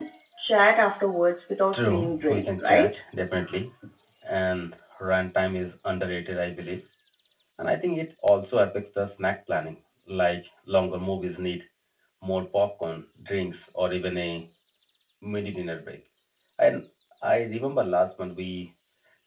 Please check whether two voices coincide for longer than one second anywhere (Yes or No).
Yes